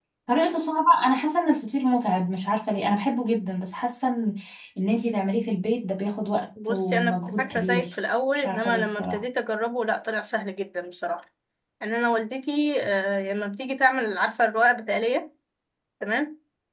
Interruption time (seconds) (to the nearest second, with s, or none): 7 s